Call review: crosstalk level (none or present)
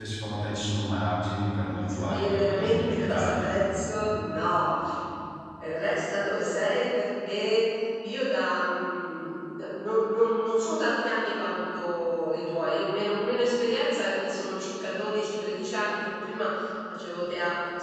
present